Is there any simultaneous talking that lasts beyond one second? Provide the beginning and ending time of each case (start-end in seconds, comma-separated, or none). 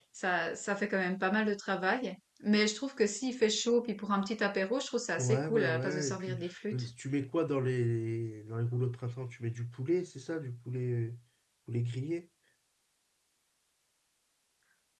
5.2-6.8